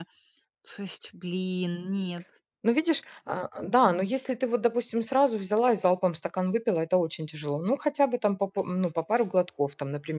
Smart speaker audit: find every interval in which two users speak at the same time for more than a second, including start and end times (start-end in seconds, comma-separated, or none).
none